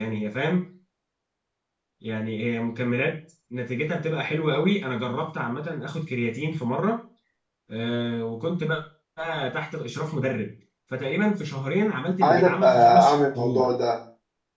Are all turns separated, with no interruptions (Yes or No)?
No